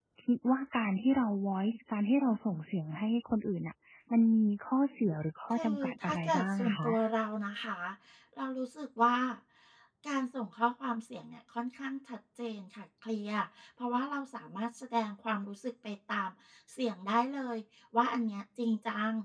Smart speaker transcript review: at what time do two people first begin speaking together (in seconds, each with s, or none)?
5.5 s